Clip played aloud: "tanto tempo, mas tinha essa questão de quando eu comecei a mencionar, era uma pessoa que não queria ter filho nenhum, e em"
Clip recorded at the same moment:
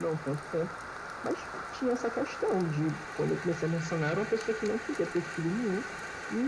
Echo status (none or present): present